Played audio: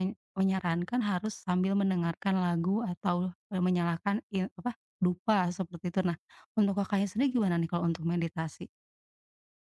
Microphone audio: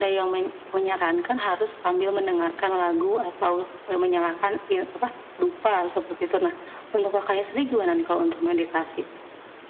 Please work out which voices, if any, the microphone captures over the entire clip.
echo only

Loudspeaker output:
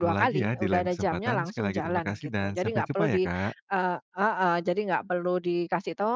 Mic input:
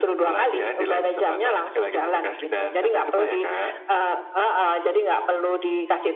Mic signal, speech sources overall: echo only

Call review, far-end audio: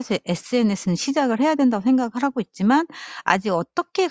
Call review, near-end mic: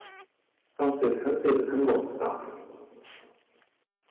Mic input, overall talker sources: user only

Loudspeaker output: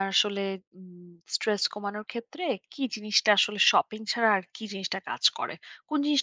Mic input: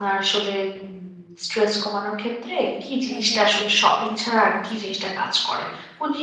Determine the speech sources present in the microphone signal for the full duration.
both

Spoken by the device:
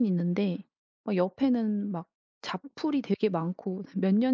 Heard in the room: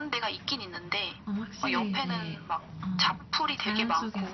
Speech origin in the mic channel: both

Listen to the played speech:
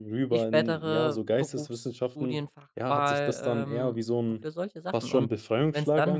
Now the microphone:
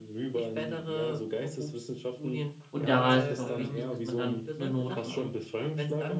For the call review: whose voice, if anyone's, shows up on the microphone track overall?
both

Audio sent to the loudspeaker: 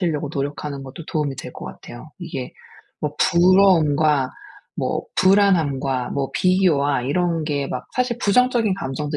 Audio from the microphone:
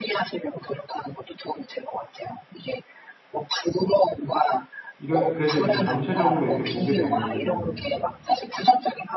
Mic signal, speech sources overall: both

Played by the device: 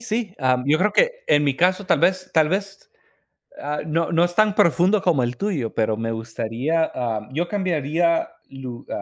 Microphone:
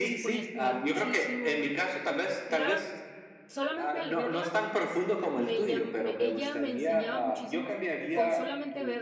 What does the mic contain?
both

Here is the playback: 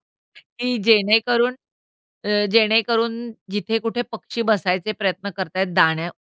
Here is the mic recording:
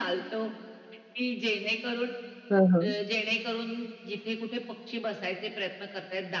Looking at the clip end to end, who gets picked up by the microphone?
both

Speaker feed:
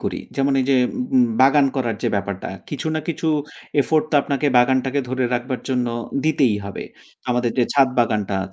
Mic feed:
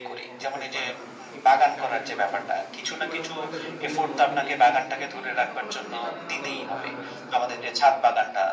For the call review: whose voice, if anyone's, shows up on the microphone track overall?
both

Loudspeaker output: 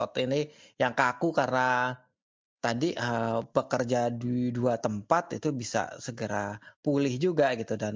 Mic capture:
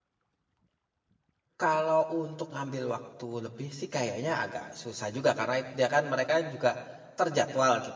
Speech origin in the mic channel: user only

